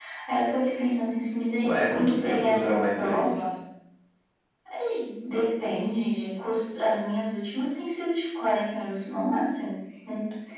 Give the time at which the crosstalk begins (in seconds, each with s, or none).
1.6 s